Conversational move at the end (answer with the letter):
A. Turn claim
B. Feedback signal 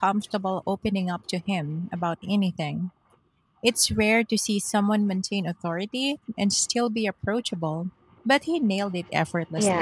A